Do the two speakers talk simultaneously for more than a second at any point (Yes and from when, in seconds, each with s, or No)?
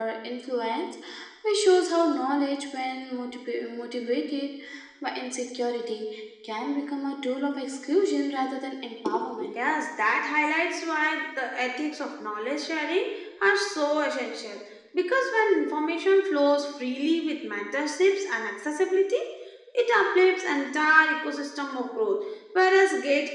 No